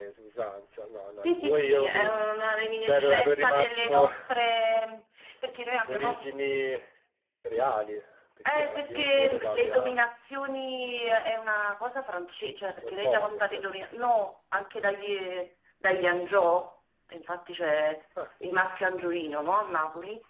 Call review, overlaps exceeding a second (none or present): present